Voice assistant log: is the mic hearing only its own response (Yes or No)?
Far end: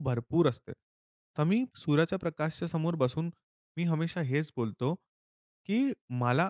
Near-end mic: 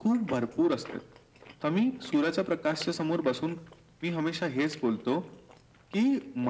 Yes